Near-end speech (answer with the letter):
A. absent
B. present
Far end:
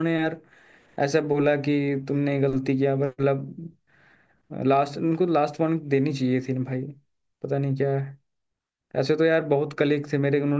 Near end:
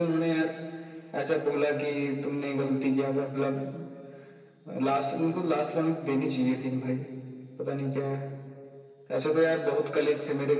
A